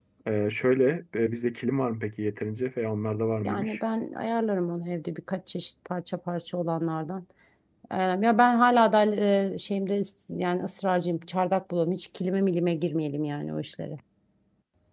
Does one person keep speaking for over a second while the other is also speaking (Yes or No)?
No